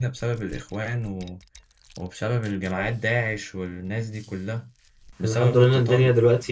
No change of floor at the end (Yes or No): No